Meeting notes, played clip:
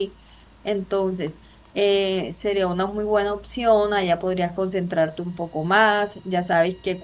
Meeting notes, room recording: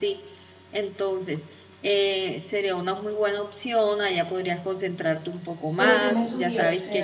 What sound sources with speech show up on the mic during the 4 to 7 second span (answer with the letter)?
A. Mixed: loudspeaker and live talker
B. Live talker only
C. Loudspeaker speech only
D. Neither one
A